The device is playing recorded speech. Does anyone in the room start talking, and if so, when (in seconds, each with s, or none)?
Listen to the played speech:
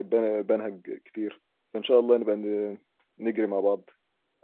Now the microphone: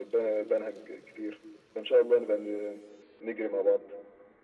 none